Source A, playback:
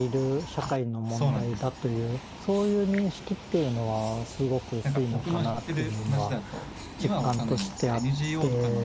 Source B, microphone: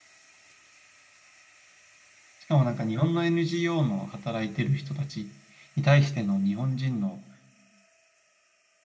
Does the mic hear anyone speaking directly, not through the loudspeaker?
Yes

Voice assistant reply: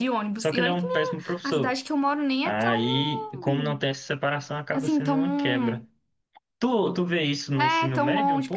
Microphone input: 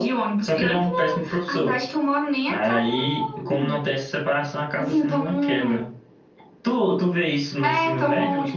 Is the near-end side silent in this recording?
Yes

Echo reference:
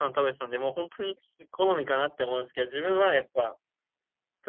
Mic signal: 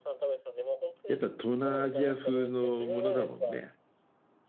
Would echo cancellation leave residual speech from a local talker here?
Yes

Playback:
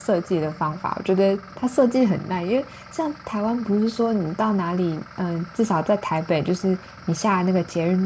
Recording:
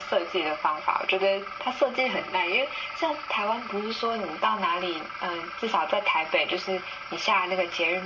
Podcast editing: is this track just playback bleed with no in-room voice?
Yes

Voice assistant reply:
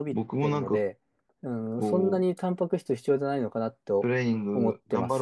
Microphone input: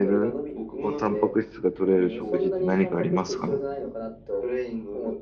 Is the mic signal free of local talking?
No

